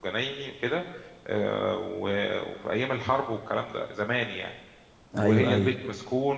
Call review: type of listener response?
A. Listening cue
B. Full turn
A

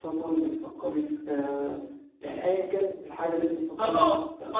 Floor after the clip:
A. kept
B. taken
B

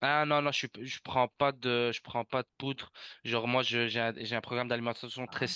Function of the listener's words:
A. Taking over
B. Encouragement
B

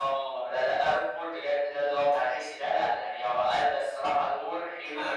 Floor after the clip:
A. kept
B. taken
A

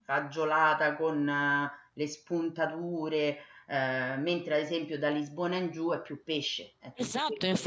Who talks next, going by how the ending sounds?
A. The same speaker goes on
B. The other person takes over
B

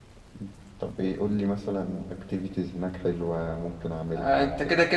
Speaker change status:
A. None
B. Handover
B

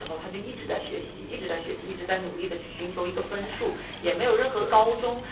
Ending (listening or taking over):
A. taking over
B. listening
B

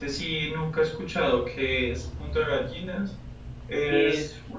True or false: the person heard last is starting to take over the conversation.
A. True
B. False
B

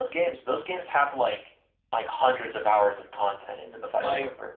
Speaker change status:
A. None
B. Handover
B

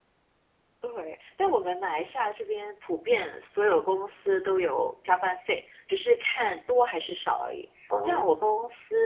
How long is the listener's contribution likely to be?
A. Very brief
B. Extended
A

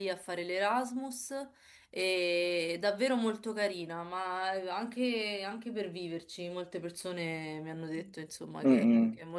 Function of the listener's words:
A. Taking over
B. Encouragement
A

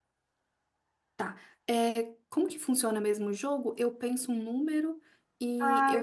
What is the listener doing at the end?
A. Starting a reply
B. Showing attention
A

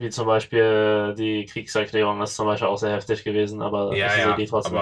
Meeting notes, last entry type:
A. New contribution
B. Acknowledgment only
A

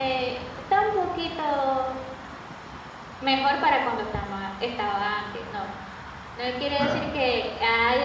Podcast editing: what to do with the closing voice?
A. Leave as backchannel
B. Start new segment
A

